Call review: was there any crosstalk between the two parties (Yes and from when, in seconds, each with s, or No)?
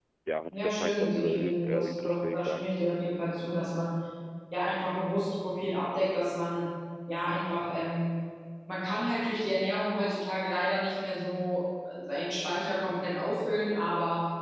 Yes, from 0.5 s